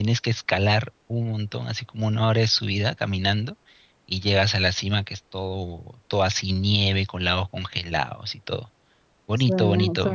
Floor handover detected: Yes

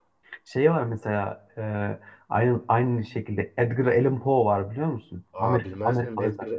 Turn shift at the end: Yes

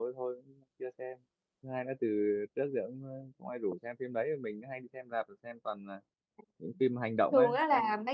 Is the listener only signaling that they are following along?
No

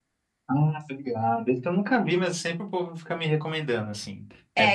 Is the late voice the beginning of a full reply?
Yes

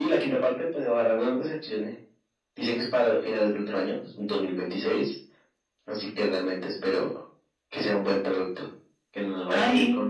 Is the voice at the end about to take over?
No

